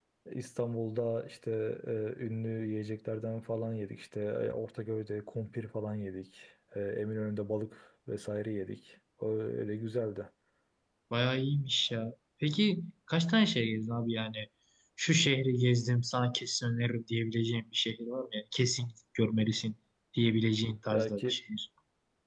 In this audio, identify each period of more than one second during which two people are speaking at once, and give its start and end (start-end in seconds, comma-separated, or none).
none